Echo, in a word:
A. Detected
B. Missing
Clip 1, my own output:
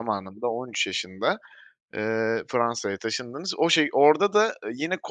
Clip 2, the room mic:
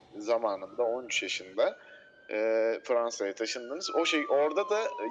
A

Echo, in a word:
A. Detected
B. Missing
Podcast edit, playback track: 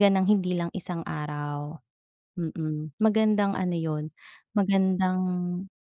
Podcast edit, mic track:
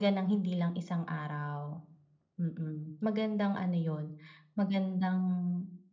A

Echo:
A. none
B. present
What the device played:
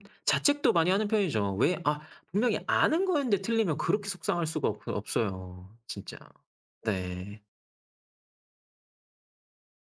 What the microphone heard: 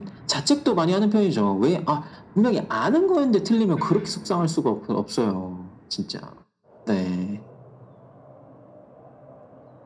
B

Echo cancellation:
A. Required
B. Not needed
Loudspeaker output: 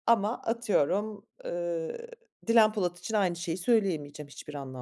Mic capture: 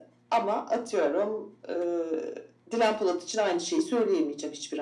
A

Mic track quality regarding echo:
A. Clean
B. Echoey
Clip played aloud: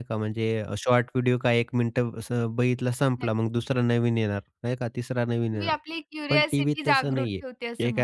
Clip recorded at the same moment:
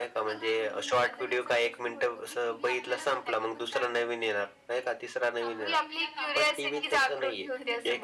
B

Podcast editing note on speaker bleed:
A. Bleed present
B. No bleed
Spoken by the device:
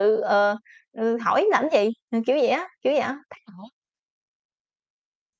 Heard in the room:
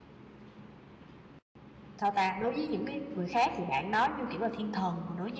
B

